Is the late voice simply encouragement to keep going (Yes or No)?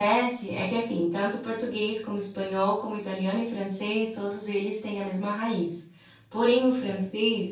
Yes